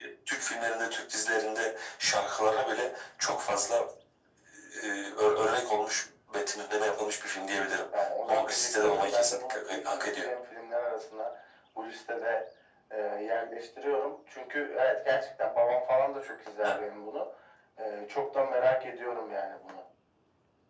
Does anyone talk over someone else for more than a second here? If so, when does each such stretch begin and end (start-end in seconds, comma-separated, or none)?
8.0-10.3